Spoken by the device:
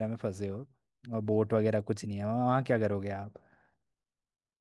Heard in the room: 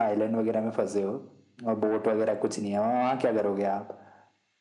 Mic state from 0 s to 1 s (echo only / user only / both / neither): echo only